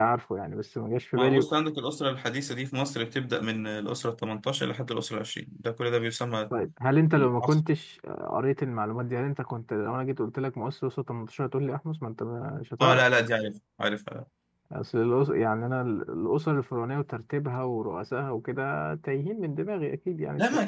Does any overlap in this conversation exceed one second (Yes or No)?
No